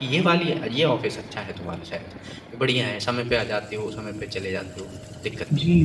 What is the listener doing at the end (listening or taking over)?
taking over